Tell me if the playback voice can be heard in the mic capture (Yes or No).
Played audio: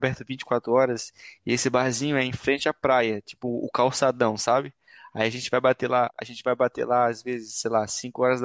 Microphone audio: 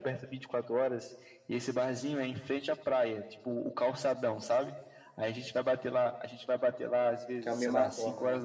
Yes